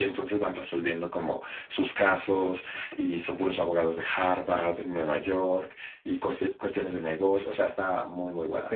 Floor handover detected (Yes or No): Yes